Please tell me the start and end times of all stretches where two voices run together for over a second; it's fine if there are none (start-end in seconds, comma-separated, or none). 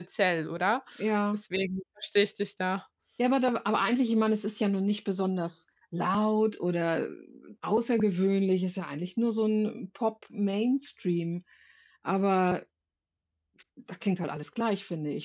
none